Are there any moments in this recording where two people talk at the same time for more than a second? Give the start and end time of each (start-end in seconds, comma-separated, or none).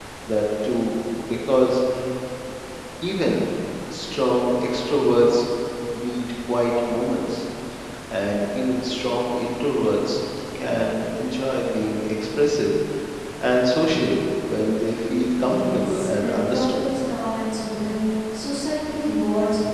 15.4-16.8